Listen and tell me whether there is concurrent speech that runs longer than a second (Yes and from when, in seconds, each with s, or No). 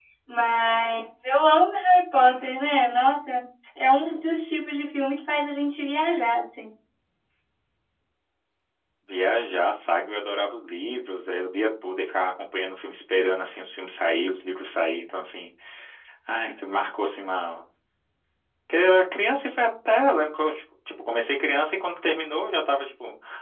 No